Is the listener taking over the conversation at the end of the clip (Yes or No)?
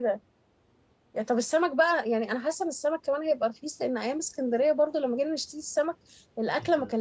No